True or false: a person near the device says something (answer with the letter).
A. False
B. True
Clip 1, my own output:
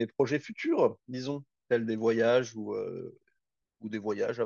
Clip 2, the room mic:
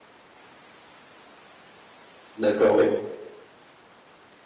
B